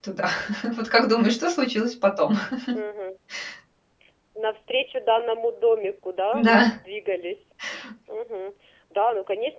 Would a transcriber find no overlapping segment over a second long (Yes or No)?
Yes